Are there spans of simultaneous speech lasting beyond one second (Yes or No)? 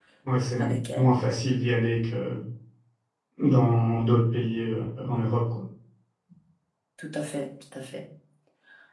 No